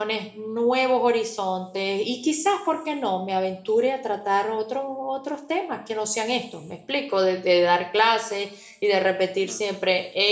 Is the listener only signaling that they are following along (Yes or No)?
Yes